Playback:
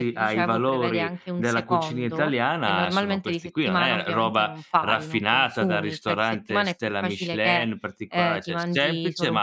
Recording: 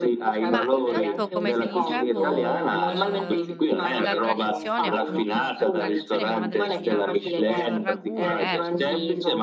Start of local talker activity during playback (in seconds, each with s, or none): 0.4 s